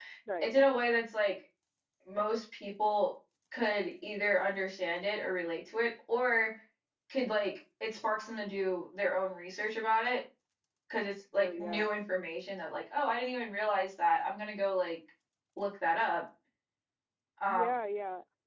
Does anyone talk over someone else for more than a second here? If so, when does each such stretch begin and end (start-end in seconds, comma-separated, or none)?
none